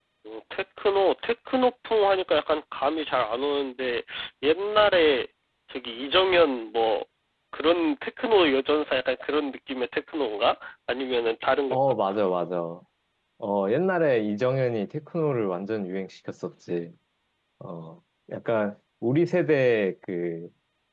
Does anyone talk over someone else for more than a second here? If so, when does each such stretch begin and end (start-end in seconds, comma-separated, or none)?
none